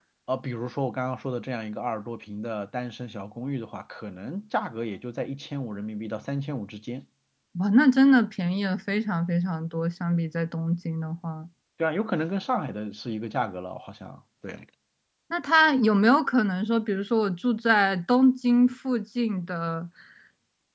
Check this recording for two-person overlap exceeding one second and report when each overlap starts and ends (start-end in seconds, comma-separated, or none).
none